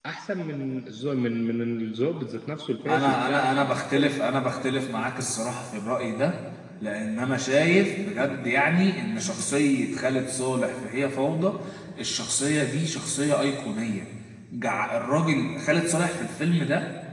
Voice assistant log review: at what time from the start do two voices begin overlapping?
2.8 s

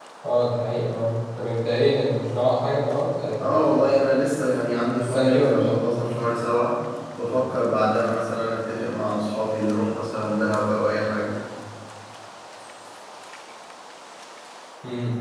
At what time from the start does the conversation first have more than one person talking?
3.4 s

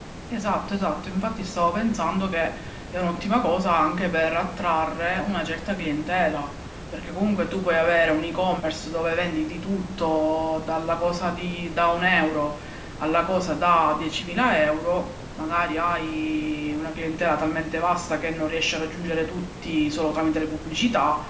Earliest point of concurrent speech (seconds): none

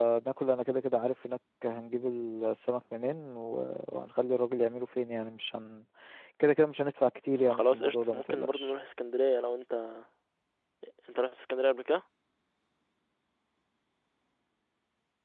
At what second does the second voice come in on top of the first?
7.4 s

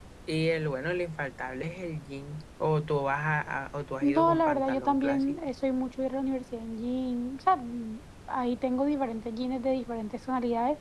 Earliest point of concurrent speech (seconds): 4.0 s

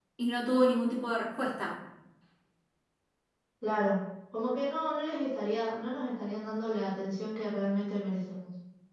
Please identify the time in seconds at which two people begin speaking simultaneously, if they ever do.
none

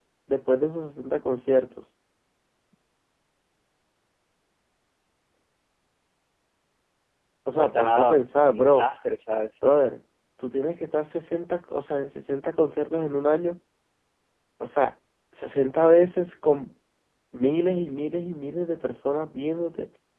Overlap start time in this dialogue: 7.6 s

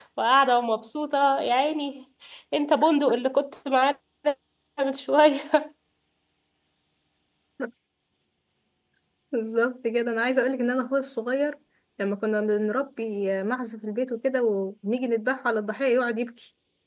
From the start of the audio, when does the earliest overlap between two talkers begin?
none

